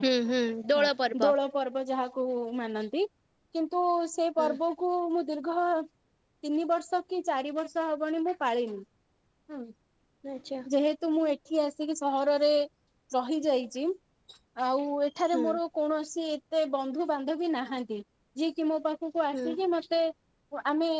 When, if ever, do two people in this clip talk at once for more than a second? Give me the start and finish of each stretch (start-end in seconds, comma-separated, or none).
none